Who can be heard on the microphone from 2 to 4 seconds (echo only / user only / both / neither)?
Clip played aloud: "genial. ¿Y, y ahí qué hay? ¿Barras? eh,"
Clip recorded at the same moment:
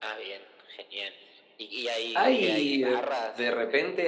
both